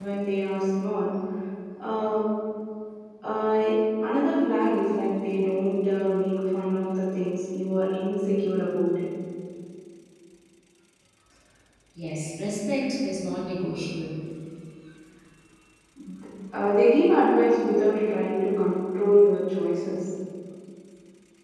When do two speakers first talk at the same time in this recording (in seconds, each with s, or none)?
none